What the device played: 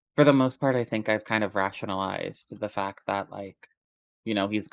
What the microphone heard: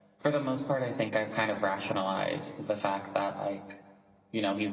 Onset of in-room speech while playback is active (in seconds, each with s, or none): none